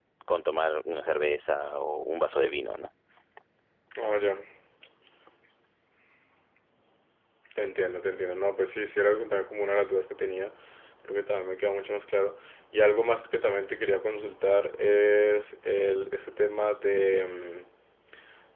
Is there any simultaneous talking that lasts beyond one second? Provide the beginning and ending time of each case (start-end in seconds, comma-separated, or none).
none